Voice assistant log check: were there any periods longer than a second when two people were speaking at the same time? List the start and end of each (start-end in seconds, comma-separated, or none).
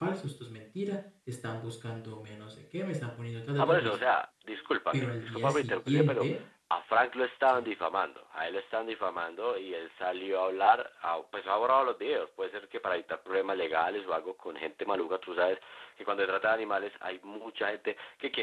4.9-6.3